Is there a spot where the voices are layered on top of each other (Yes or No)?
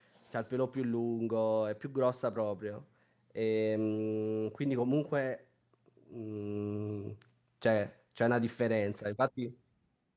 No